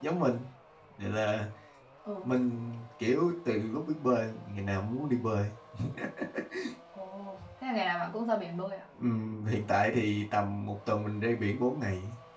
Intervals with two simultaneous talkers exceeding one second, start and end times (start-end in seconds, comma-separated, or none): none